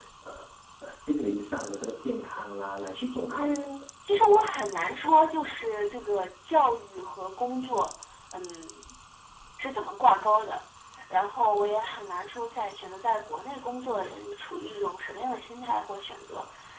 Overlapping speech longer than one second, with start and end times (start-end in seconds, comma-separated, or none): none